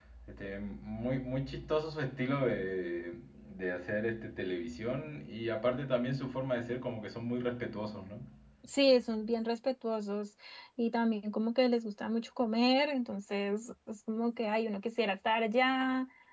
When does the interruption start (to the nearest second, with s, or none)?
none